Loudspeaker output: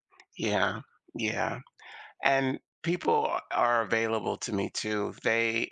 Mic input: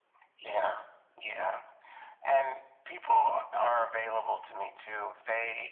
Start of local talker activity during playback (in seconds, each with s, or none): none